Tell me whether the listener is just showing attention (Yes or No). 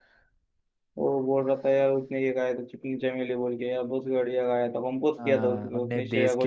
No